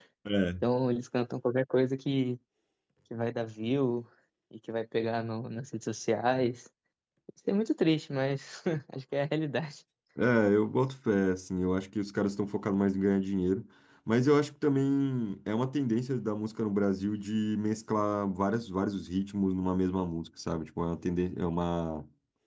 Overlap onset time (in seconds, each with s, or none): none